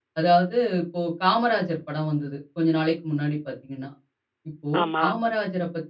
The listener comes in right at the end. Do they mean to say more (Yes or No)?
No